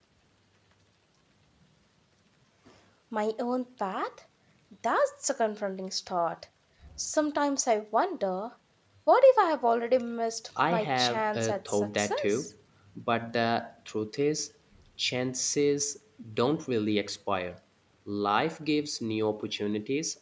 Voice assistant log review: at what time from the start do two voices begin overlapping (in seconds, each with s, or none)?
10.6 s